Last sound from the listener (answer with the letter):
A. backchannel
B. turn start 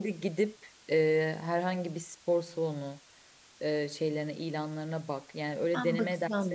B